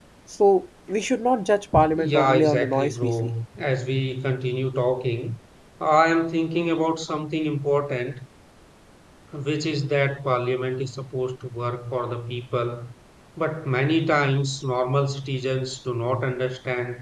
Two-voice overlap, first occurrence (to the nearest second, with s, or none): 2 s